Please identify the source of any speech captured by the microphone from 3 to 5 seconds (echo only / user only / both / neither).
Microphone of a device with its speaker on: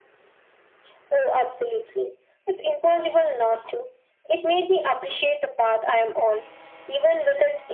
echo only